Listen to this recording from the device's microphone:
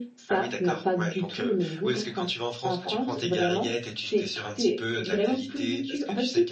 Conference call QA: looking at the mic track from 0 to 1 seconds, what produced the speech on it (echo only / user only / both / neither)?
echo only